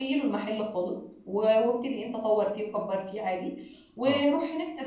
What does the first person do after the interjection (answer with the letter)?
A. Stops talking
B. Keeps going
B